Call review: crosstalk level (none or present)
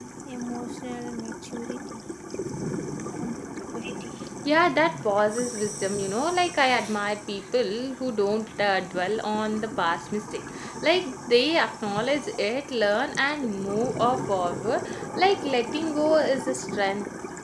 none